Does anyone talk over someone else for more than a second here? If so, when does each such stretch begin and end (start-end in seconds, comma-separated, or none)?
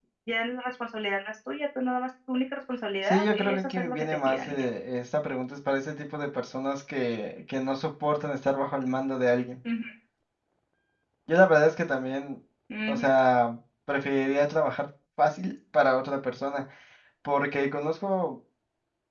3.1-4.6